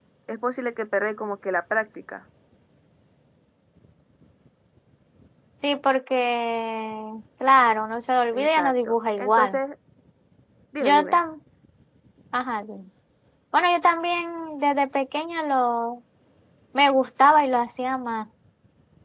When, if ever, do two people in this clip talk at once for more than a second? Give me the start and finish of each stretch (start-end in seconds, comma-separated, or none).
8.3-9.6